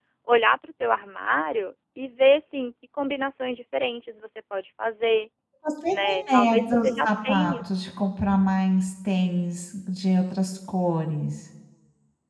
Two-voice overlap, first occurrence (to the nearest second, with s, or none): 6 s